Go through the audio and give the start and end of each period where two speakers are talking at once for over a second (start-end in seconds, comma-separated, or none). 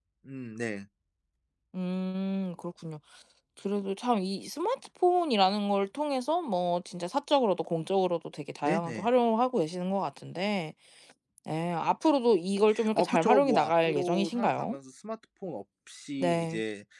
13.0-14.8